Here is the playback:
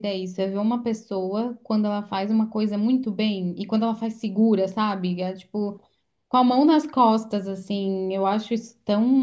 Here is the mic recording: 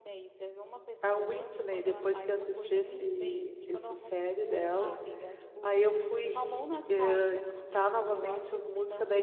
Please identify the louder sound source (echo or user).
user